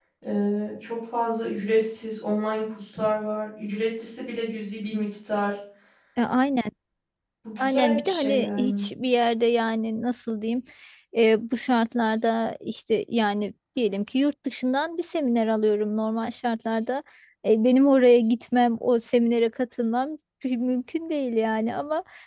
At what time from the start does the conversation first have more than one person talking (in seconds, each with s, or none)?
7.6 s